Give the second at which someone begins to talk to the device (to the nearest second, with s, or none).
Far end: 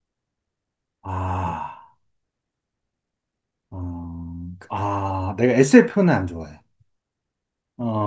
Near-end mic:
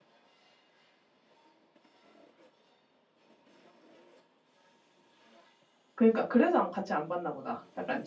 6 s